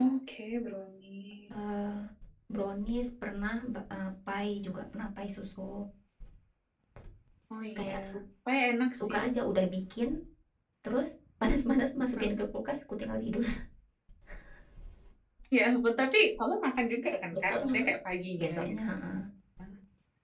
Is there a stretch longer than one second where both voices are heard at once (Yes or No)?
No